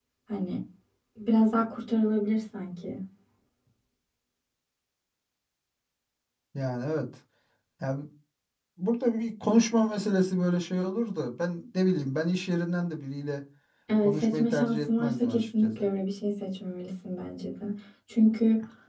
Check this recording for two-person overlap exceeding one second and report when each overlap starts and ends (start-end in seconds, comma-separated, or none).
14.0-15.8